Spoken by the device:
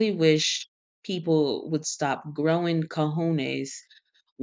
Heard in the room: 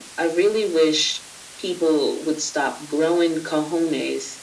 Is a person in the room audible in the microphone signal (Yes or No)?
No